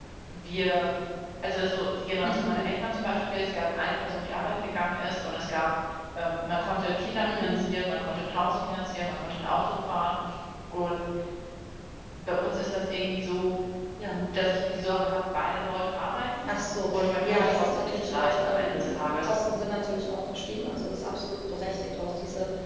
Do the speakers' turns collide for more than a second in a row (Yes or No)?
Yes